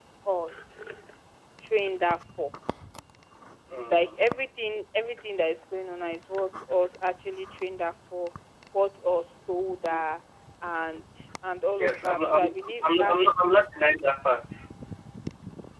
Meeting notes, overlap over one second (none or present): present